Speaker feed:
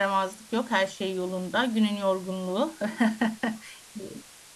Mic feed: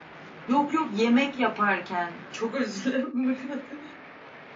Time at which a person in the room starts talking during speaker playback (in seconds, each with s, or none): 0.5 s